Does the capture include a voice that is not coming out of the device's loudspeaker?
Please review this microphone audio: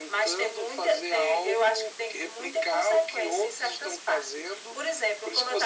No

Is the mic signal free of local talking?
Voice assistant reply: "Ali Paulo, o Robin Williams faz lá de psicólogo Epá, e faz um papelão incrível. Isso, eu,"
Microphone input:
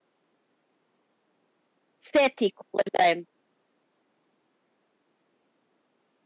No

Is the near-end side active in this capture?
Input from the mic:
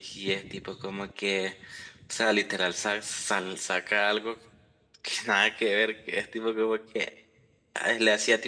No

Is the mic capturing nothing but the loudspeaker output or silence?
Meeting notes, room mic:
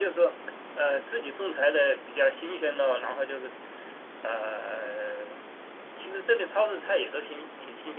Yes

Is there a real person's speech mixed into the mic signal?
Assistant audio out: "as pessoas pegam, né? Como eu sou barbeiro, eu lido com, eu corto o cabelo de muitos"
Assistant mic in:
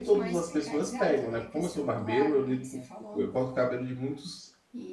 Yes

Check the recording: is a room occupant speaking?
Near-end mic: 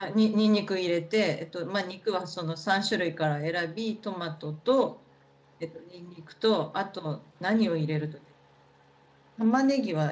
Yes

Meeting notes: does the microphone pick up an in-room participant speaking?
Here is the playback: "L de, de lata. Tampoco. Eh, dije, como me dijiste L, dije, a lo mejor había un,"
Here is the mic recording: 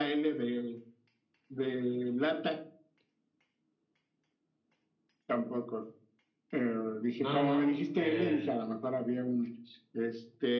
Yes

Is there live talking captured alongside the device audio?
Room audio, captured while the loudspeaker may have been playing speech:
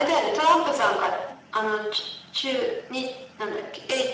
No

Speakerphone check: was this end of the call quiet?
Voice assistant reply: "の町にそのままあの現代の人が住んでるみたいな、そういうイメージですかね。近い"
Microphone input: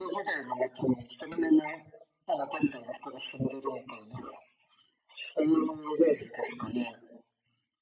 Yes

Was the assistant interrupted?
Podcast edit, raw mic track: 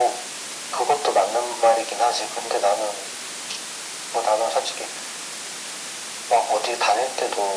No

